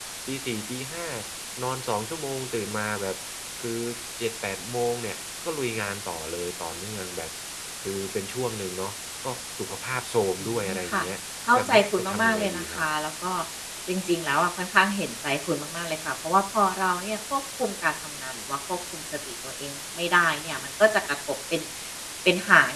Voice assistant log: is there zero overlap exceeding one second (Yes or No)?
No